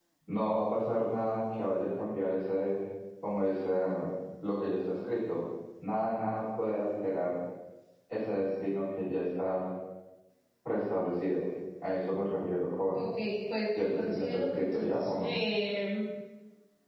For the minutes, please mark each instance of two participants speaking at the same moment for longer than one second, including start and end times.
13.8-15.3

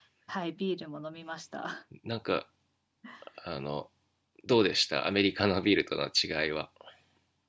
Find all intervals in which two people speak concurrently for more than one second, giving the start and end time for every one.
none

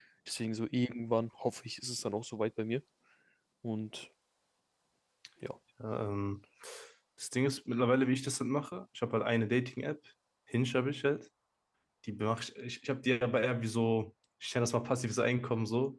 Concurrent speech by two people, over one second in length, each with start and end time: none

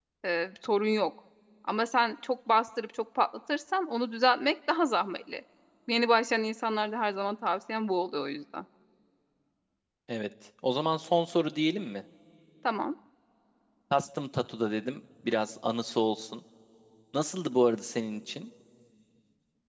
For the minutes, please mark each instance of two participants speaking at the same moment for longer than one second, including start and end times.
none

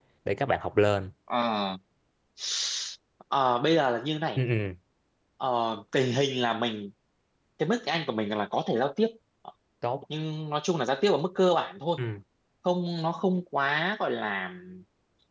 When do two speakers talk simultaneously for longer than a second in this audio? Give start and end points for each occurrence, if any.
none

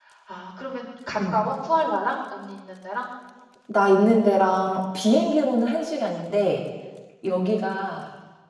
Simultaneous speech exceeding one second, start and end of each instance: none

